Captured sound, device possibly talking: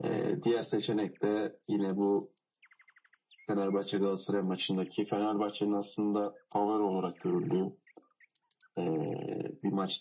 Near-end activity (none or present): none